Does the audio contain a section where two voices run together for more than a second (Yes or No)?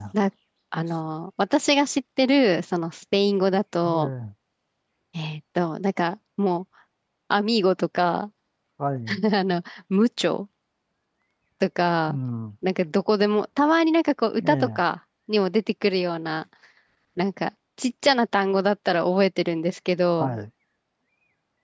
No